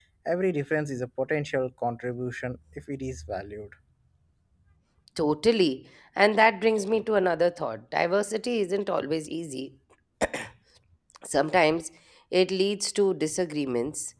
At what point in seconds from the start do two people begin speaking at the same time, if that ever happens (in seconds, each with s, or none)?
none